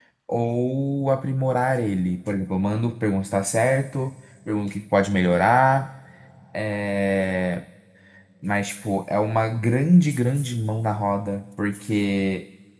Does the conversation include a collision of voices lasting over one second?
No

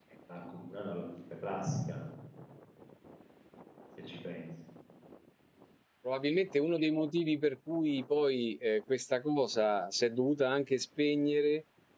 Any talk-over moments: No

